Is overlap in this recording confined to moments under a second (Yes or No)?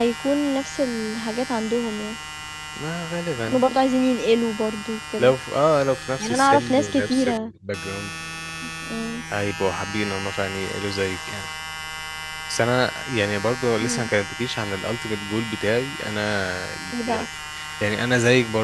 No